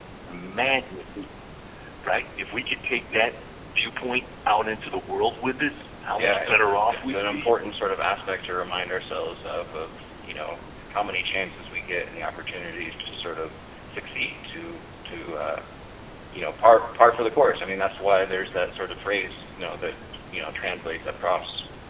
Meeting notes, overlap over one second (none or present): present